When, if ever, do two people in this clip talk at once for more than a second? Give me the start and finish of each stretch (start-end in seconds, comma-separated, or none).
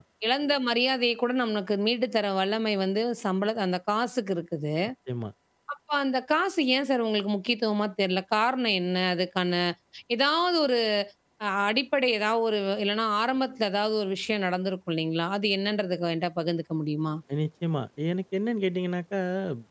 none